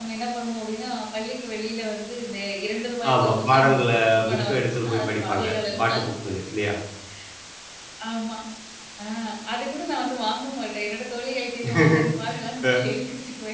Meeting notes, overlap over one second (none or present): present